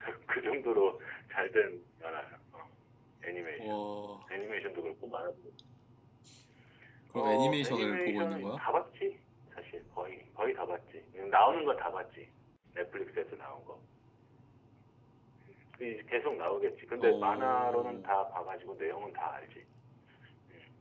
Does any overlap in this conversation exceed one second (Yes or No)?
Yes